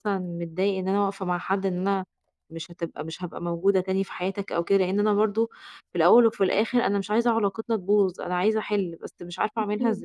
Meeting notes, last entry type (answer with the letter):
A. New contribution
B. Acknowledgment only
A